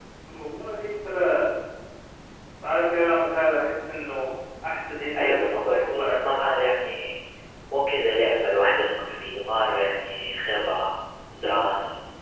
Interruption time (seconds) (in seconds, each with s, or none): 5.1 s